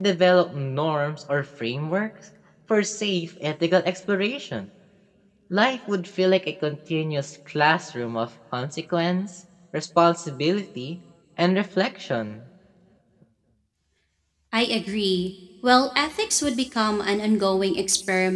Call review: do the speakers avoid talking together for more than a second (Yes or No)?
Yes